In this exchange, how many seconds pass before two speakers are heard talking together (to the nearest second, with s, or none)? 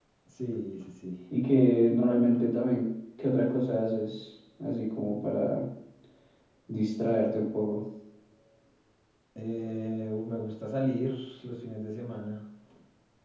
none